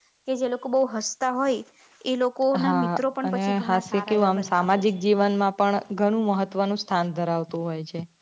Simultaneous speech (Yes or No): Yes